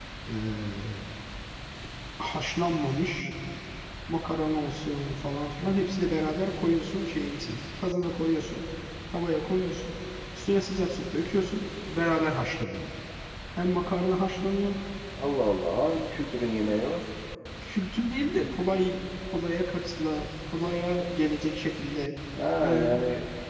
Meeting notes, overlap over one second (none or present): none